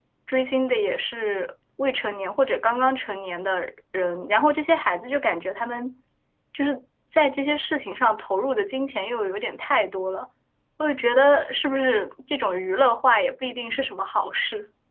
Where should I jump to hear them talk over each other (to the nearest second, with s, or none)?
none